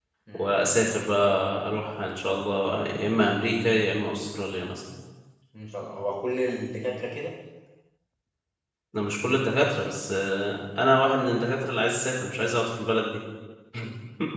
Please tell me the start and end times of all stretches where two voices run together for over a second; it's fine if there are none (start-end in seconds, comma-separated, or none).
none